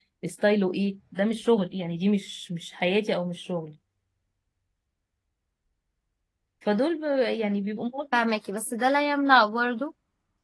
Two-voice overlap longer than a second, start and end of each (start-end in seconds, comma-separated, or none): none